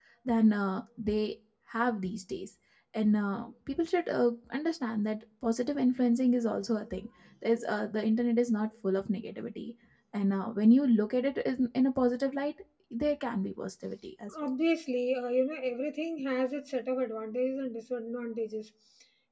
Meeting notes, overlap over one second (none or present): none